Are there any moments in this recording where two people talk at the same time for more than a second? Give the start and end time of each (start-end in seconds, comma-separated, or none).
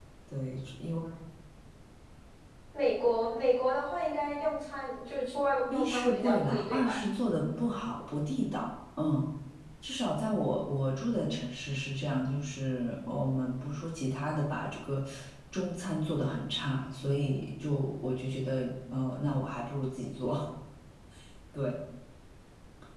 5.7-7.0